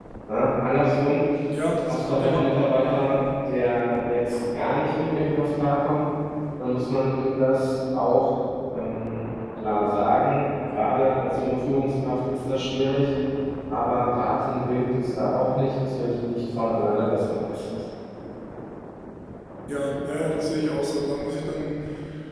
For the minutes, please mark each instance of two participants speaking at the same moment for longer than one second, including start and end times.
none

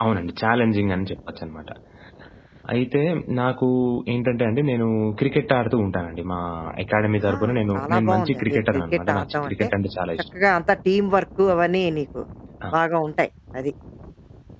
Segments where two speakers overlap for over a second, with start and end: 7.8-9.7

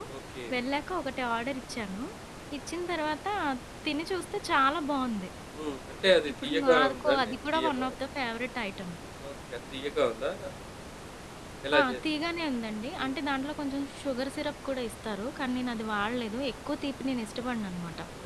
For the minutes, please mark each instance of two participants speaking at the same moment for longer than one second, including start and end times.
6.4-7.9

